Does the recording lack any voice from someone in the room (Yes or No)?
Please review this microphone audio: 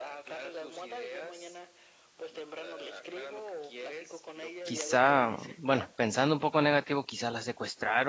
No